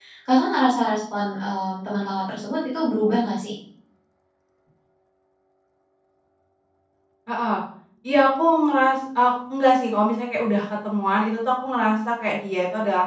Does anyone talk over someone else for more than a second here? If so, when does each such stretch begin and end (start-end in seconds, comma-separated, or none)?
none